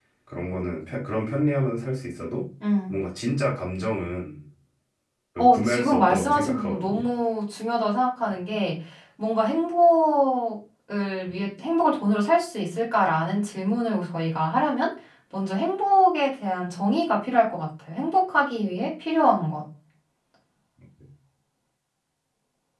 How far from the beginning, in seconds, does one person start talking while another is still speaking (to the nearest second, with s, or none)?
5 s